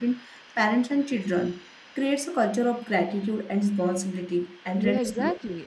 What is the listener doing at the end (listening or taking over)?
taking over